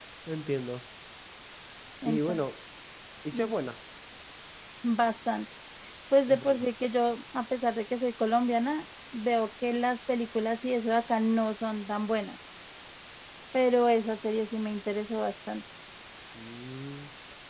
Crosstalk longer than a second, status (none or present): none